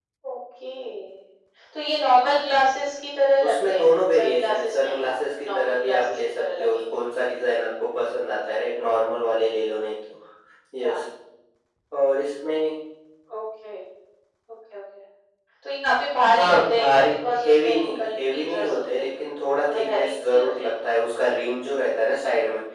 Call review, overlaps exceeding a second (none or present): present